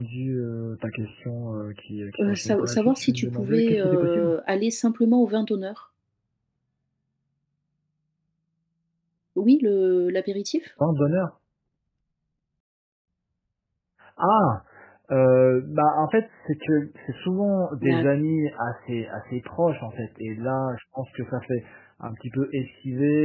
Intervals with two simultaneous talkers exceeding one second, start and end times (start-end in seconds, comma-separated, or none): 2.2-4.3